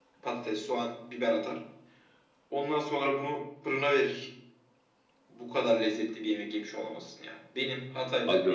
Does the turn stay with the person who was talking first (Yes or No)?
Yes